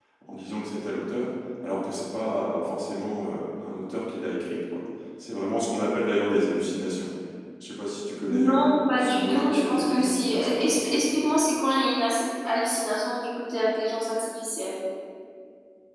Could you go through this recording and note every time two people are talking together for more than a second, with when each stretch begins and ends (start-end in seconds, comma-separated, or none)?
8.3-11.0